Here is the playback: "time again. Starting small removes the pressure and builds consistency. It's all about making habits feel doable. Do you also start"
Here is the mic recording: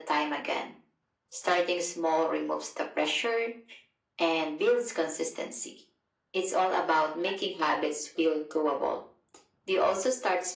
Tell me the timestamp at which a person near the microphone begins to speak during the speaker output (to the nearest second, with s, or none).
none